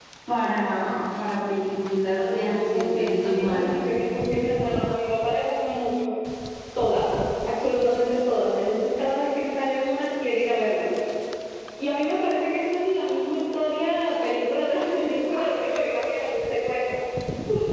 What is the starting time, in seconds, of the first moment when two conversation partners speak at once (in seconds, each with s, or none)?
2.1 s